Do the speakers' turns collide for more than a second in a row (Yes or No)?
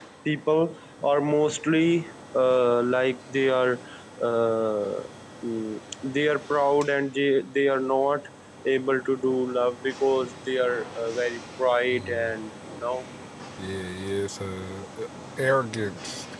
No